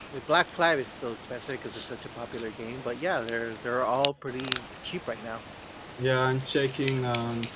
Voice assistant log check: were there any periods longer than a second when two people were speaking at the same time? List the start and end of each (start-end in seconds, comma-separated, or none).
none